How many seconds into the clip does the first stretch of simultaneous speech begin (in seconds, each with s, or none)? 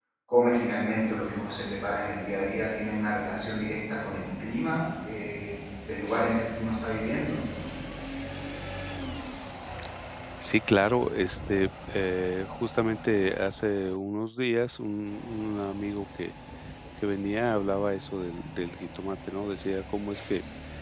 none